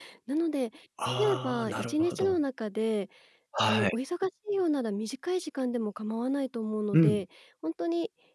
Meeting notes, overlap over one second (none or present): present